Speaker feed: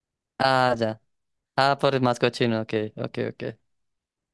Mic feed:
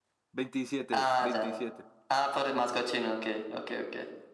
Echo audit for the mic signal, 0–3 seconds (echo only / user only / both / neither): both